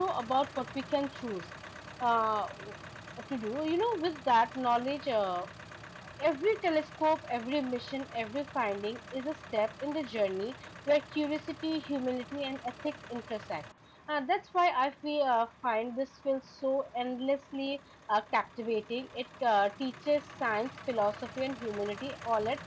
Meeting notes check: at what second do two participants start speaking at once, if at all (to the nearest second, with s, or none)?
none